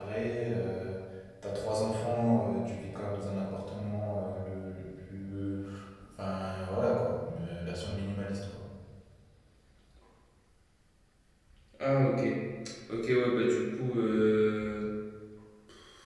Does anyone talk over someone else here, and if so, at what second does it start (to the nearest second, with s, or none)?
none